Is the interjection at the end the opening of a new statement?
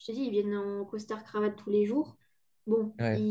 No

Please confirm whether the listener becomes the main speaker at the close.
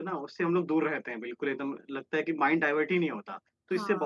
No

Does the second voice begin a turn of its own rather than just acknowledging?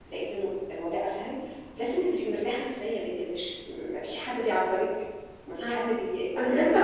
Yes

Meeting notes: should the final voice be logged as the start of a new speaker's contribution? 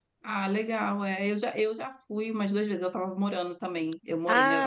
No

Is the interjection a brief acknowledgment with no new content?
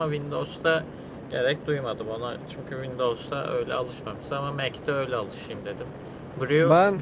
Yes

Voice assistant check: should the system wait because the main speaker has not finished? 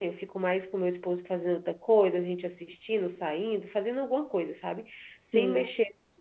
Yes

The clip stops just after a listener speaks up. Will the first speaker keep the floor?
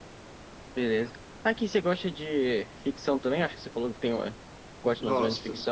No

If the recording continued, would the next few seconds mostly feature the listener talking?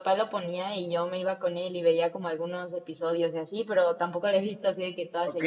Yes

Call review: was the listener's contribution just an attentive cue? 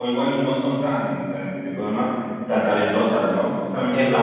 Yes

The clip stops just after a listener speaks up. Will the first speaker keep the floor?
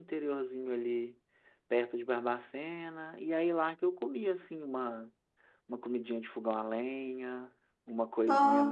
Yes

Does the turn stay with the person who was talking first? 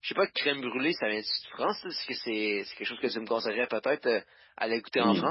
No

